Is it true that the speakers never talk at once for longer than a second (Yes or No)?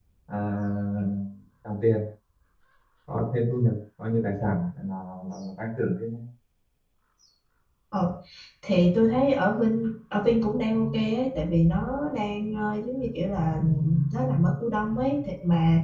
Yes